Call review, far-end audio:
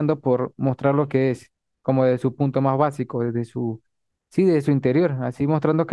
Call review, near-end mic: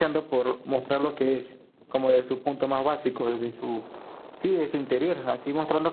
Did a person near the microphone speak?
No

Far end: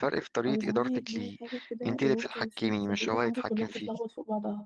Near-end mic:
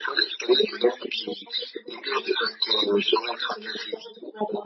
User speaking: No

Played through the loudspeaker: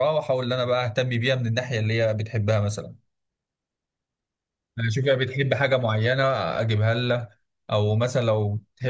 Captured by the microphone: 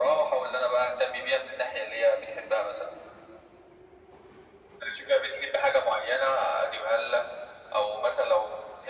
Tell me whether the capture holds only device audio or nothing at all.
Yes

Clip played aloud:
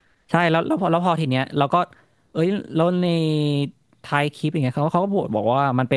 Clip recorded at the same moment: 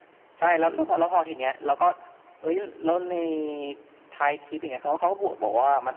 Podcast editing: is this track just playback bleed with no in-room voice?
Yes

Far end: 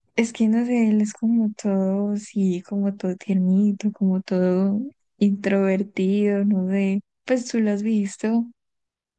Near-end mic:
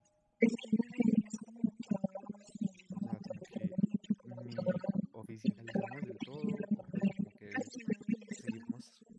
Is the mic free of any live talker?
No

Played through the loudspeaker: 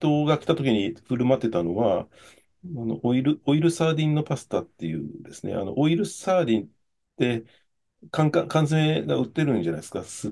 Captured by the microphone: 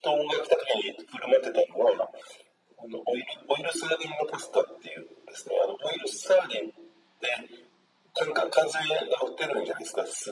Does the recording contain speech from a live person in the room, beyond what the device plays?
No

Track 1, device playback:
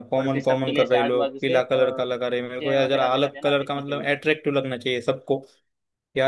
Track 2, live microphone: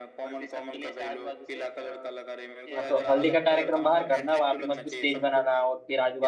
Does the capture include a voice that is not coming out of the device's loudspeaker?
Yes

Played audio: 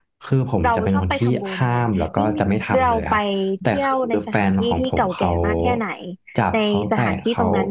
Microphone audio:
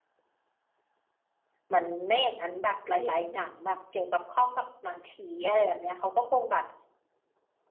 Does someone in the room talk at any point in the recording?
Yes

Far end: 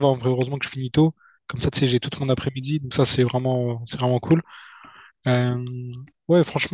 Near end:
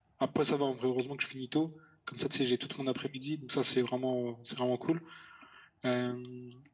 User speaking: No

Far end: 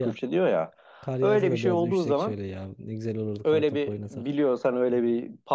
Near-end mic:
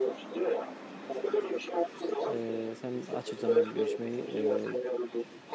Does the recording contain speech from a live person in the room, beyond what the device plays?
Yes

